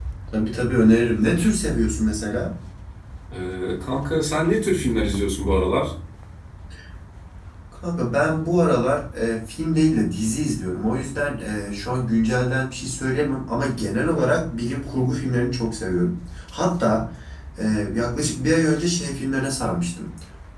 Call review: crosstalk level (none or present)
none